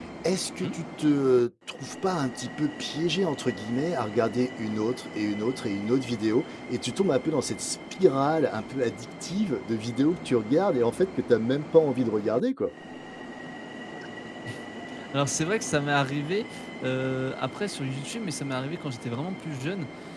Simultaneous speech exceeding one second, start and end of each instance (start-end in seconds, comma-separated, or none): none